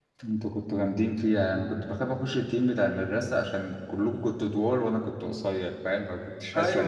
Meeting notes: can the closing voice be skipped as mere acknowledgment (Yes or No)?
No